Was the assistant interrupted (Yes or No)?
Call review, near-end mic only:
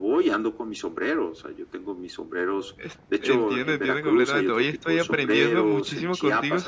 Yes